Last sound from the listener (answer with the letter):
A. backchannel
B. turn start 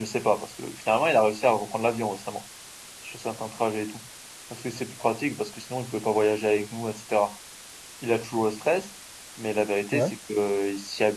A